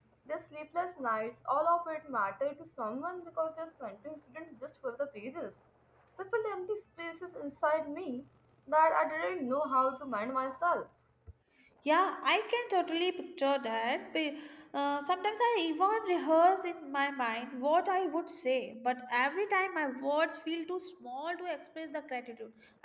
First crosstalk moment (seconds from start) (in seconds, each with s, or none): none